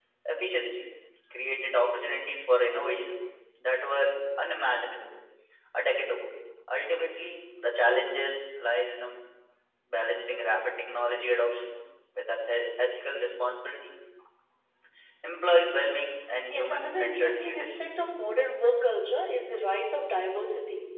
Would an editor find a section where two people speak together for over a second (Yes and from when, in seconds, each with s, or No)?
Yes, from 16.5 s